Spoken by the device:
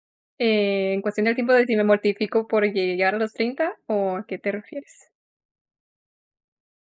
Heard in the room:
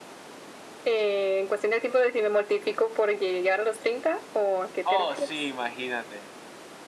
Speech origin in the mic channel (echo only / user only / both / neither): both